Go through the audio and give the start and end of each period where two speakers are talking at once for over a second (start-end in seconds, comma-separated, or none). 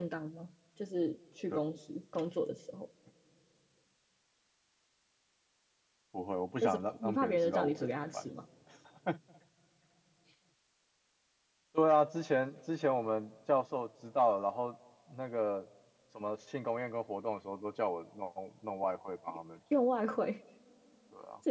6.6-8.3